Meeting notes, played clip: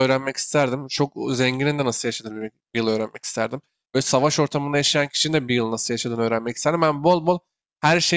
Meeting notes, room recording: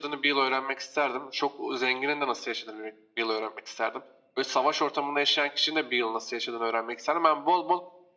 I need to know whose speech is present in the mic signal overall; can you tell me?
echo only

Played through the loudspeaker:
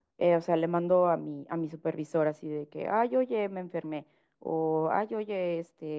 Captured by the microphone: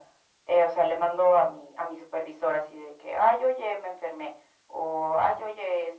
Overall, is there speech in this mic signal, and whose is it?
echo only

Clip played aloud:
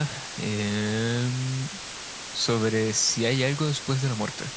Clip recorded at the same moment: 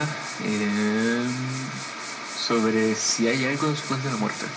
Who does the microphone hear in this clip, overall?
echo only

